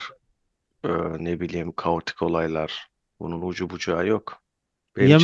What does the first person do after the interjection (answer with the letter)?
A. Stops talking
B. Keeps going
B